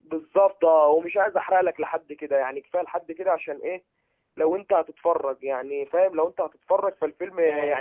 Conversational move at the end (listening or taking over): taking over